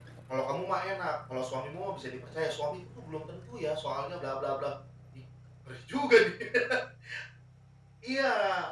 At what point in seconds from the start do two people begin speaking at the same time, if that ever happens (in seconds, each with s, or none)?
none